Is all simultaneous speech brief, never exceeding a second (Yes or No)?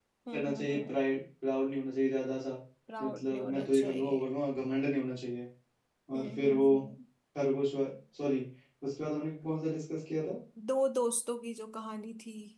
No